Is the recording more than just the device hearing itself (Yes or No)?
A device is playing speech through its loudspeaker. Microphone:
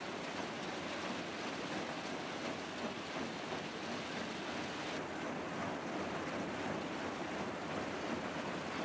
No